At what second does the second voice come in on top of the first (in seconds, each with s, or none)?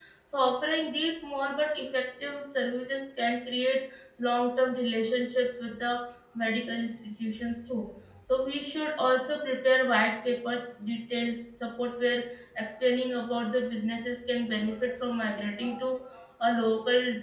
none